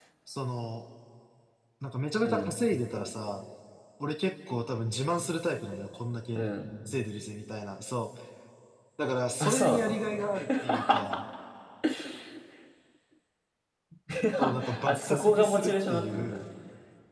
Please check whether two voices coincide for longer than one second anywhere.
Yes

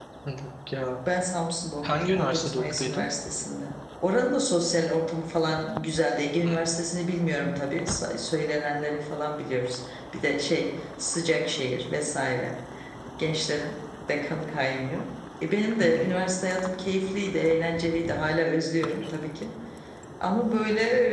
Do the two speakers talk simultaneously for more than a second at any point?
Yes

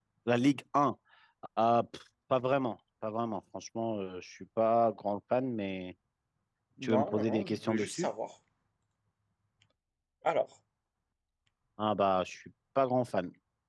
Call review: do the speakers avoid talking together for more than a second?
No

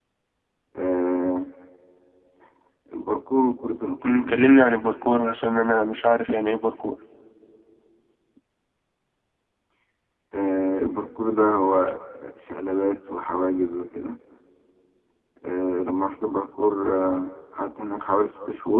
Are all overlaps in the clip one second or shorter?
Yes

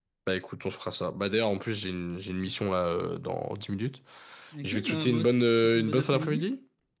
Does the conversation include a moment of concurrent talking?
Yes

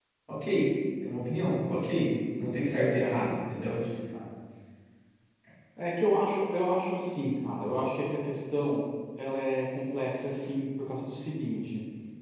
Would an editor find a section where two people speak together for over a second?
Yes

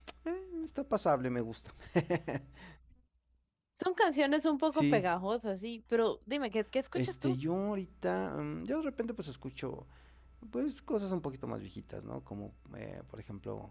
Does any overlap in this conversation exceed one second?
No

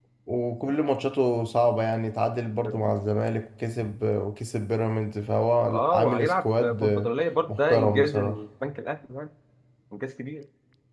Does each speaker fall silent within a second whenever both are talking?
No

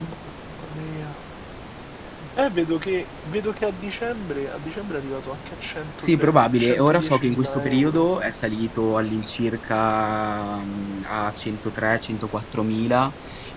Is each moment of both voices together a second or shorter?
No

